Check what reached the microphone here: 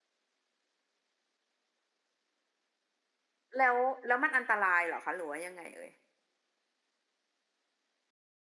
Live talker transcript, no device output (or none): แล้วแล้วมันอันตรายเหรอคะหรือว่ายังไงเอ่ย